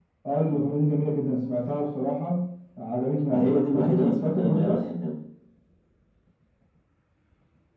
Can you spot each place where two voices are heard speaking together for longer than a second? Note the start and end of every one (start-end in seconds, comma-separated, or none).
3.3-4.9